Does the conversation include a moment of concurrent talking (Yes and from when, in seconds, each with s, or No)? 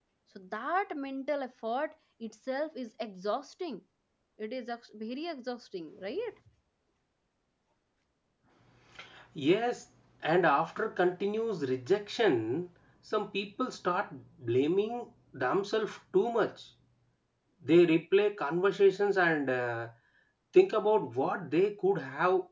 No